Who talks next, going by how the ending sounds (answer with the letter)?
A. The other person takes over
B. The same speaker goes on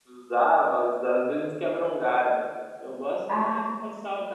B